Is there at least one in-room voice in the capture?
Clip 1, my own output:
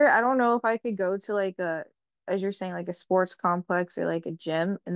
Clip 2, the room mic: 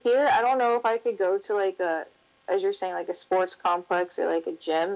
No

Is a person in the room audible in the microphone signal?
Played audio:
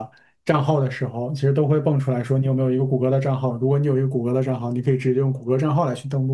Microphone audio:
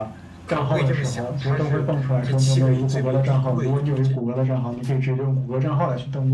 Yes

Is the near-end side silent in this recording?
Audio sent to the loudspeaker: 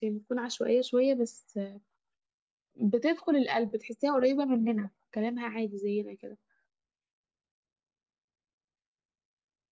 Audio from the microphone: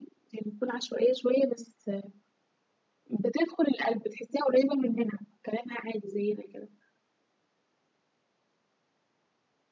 Yes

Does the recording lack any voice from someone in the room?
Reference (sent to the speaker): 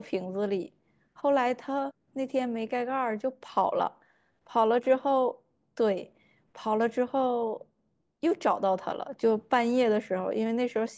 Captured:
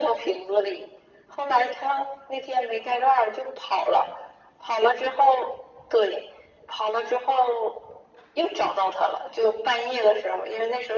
Yes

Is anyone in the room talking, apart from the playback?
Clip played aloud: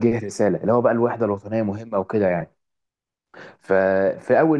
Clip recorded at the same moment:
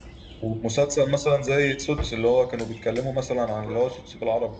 Yes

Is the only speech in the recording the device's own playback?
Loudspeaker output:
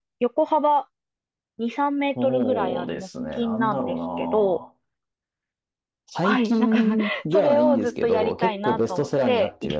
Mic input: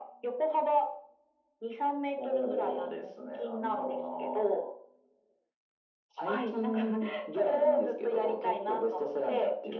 Yes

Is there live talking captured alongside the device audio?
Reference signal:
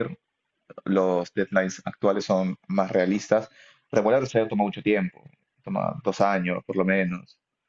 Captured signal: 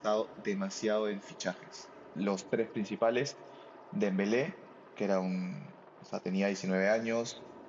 Yes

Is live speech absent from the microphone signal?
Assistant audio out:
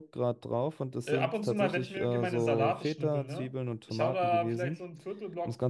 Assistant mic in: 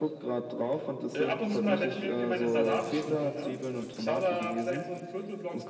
Yes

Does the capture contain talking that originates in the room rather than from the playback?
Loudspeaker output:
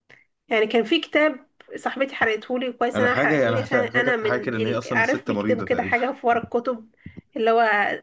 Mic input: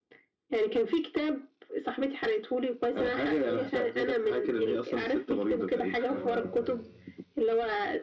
Yes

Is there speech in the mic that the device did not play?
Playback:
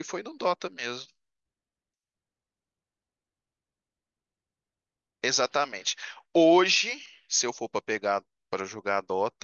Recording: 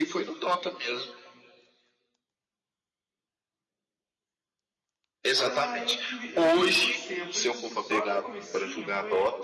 Yes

